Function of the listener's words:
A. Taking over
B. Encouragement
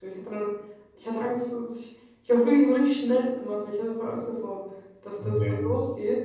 B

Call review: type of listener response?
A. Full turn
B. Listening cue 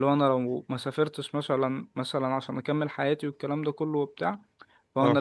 B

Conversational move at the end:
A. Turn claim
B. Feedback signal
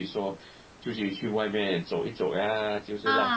A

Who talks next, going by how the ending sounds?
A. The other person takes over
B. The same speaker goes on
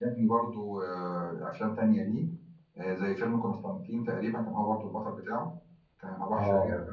A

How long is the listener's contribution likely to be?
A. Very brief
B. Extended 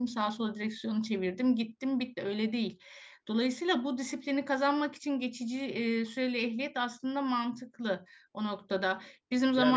B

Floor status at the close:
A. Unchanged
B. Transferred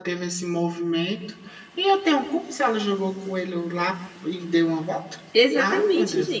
B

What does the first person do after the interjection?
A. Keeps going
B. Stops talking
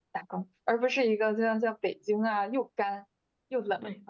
B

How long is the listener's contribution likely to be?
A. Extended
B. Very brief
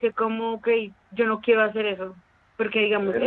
B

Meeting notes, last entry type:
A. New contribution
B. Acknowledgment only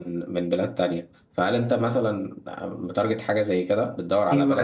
A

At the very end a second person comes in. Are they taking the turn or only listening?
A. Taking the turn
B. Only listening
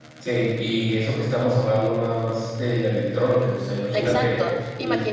A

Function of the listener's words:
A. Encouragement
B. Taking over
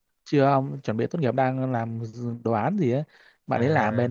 A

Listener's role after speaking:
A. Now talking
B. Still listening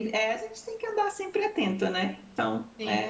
A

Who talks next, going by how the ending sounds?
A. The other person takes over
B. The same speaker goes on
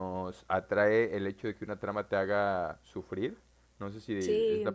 B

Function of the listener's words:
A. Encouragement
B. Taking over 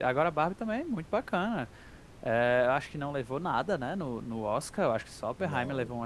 A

